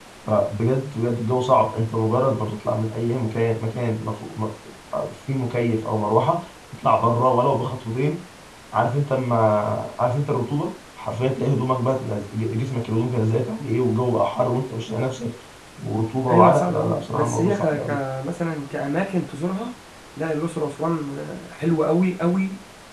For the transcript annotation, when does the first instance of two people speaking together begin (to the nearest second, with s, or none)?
16 s